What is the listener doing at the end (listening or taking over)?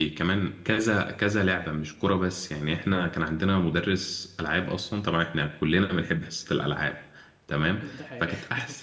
listening